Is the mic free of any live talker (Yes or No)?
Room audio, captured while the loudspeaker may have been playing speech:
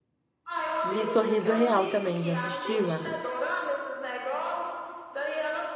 No